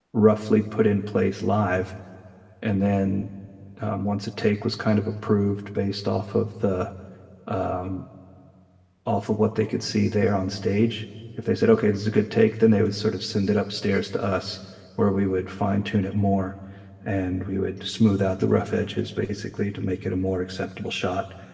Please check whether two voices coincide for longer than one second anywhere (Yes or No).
No